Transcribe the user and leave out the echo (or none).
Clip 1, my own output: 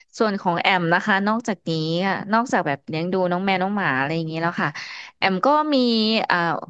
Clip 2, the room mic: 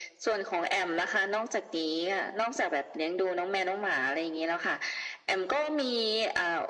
none